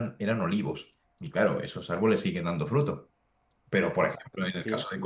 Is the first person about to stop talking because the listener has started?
No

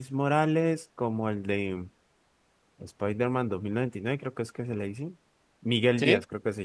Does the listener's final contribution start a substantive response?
No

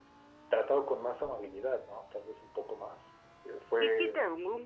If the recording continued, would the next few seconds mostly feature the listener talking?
Yes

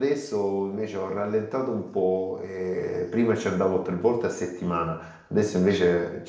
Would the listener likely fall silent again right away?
Yes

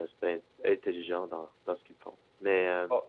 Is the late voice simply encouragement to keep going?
Yes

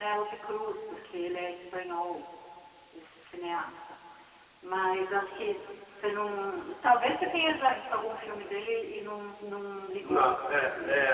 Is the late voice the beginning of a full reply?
Yes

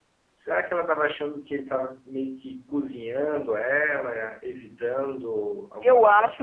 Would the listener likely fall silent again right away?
No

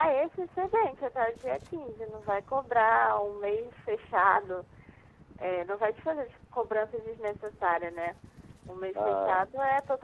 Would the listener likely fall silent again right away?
Yes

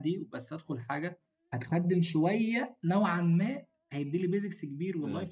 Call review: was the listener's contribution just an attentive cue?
Yes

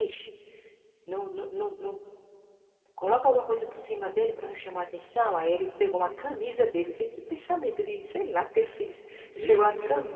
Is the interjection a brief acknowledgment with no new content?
Yes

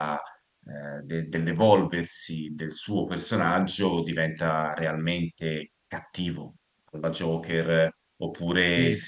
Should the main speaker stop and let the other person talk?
No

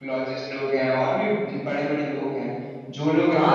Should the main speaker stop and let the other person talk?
Yes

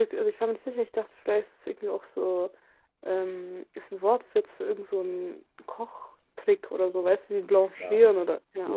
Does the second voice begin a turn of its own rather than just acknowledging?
Yes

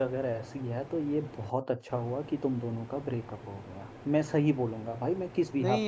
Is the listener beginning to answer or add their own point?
Yes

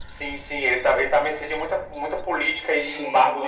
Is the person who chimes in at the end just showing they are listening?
No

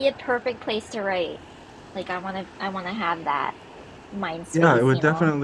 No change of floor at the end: No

